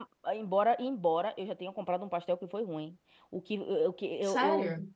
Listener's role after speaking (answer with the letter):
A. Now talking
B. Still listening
B